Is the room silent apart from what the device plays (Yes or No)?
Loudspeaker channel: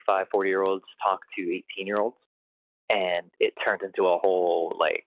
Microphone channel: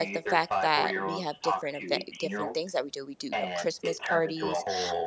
No